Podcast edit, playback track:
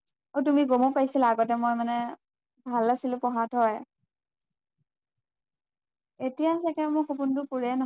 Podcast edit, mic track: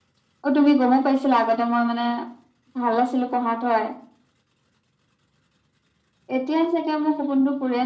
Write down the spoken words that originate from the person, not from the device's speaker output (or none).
none